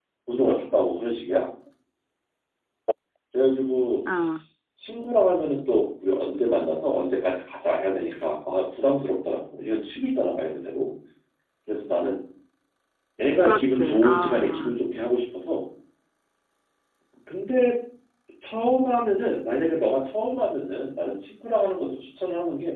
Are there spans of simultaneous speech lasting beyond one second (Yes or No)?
Yes